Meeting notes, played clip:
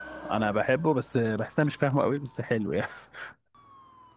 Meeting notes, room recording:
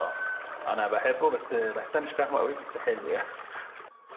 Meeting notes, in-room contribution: none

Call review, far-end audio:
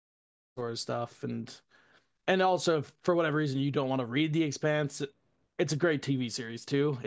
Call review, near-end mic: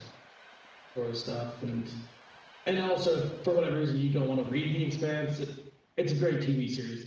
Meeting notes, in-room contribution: none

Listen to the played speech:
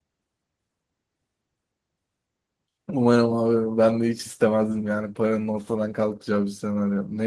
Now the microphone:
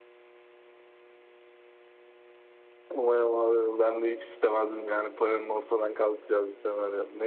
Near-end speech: none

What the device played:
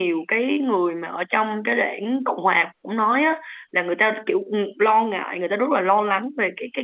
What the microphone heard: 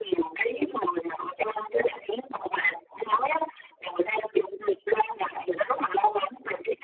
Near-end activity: none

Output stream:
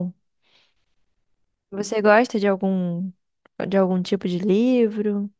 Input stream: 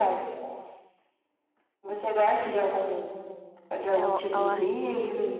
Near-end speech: present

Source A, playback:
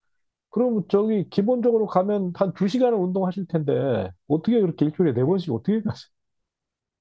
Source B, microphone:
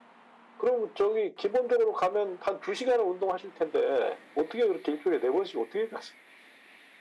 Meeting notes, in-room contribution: none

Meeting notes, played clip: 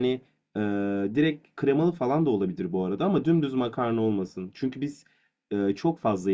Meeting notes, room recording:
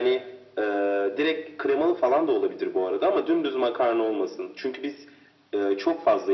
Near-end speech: none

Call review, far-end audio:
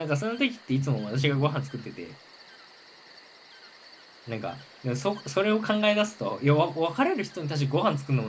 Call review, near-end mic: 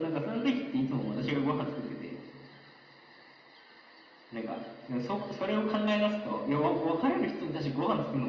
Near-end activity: none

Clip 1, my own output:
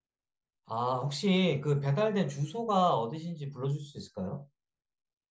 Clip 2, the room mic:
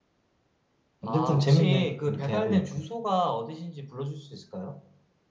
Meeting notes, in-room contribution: present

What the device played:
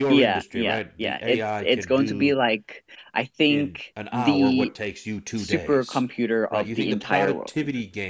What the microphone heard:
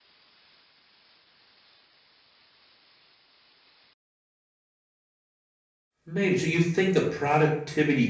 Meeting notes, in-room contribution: present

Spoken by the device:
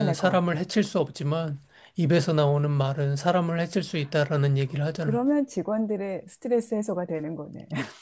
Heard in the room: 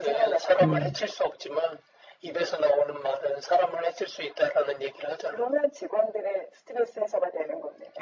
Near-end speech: present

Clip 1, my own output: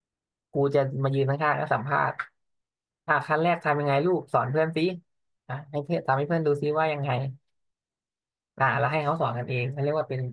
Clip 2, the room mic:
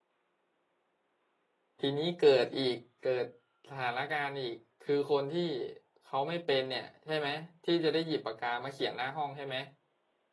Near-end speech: present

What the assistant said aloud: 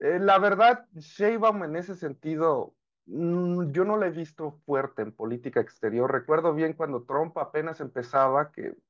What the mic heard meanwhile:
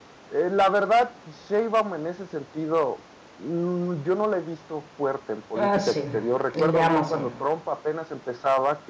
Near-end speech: present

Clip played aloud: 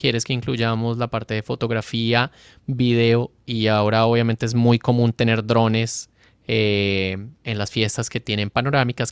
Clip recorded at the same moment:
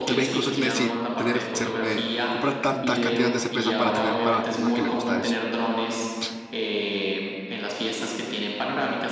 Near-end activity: present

